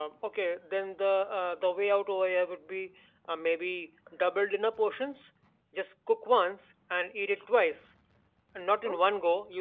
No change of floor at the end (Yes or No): Yes